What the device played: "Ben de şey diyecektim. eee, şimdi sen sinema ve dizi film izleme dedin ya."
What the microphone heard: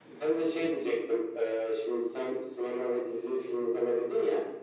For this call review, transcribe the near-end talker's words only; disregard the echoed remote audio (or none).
none